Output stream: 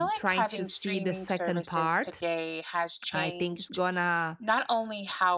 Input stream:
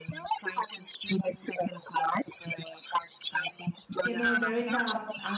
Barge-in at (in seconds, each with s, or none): 4.0 s